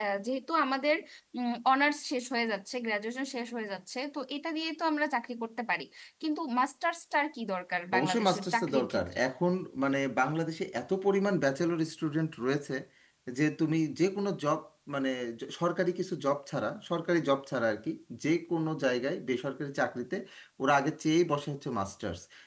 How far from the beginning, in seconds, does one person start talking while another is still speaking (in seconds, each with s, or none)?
7.9 s